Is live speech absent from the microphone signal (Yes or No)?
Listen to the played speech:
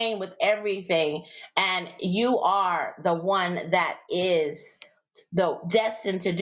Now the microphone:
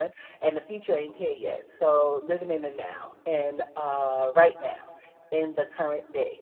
No